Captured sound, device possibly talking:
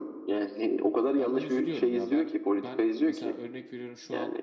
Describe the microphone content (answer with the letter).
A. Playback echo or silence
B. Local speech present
B